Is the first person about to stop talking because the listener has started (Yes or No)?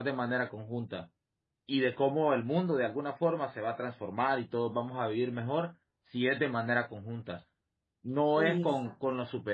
No